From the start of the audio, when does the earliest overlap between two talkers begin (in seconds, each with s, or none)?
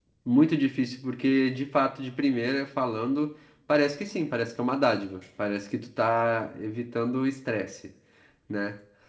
none